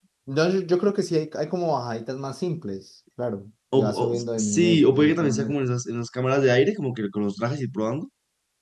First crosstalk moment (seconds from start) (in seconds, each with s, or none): 3.7 s